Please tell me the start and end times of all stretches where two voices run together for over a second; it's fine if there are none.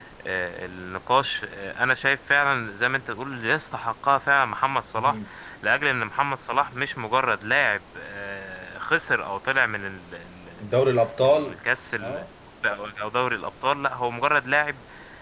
none

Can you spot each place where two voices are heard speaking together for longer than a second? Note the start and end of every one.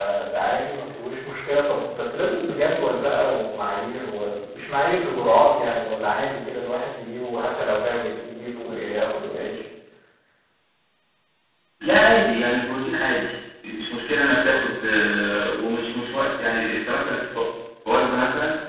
none

